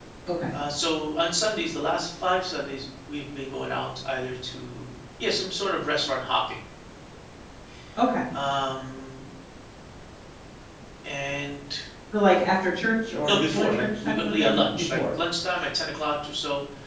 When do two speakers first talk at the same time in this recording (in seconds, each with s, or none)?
13.2 s